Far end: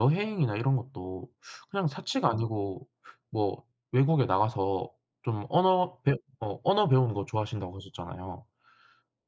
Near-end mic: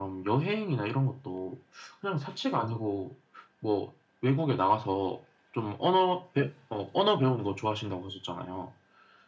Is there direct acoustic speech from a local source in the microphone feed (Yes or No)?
No